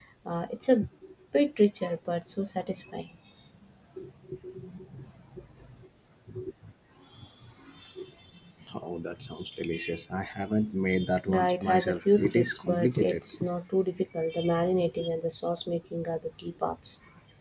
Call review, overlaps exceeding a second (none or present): present